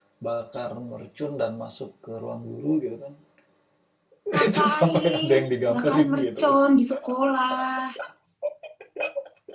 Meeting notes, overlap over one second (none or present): present